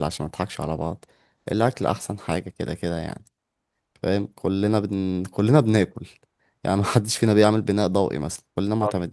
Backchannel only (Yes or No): Yes